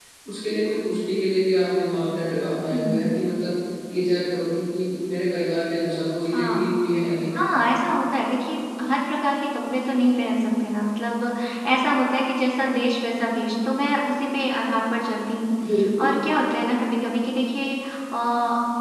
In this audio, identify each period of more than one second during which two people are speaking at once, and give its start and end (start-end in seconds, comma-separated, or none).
none